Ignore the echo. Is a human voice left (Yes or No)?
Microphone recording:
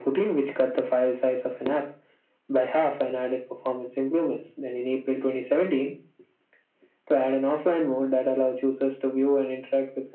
No